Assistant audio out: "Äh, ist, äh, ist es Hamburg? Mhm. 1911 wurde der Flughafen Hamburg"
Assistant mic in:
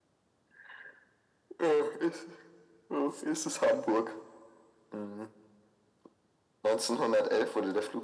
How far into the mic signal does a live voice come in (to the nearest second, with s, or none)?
none